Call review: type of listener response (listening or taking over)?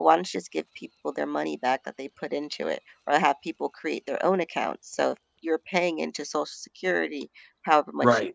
listening